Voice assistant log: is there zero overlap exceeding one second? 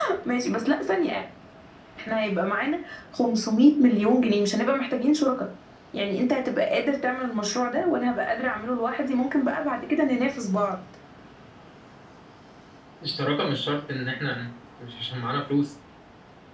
Yes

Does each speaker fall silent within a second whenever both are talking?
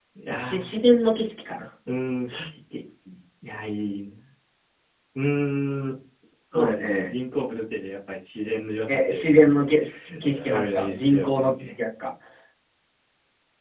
No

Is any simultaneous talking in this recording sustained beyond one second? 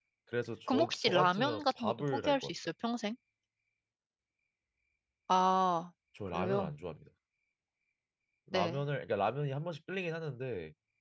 Yes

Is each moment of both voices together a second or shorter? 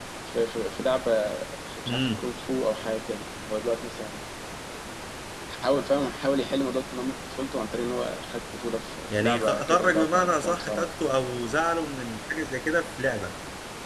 No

